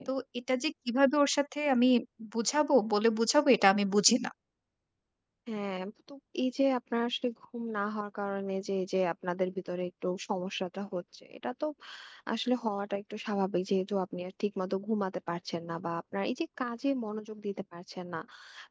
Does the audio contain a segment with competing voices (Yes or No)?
No